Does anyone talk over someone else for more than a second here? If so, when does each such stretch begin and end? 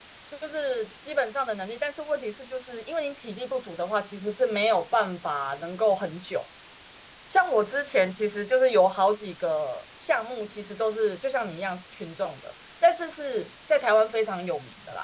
none

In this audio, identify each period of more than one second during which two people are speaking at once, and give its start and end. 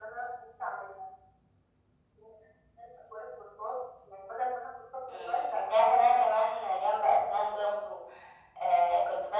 5.1-7.7

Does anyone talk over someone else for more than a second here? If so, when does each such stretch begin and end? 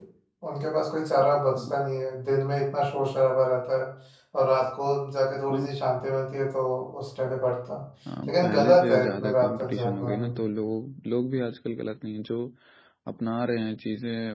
8.3-10.3

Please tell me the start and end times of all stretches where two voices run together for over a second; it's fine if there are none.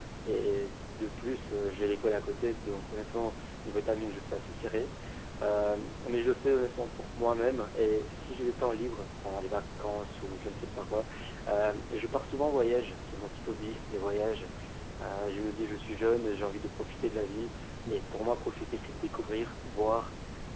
none

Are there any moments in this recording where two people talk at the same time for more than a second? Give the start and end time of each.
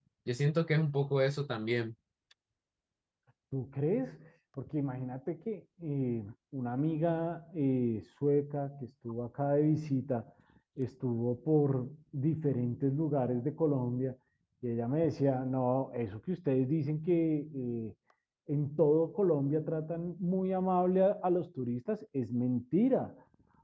none

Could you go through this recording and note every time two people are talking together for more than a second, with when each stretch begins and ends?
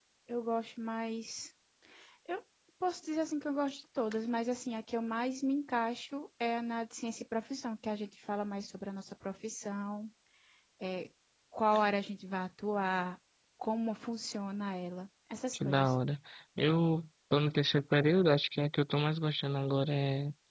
none

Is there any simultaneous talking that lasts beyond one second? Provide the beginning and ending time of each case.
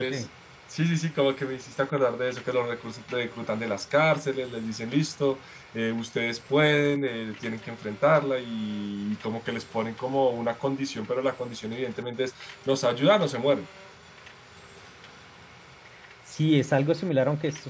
none

